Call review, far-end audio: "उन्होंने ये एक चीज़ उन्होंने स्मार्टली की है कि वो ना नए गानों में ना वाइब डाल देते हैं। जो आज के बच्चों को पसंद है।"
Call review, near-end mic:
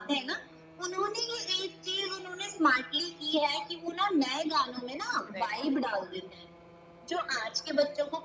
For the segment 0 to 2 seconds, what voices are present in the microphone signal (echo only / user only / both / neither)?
echo only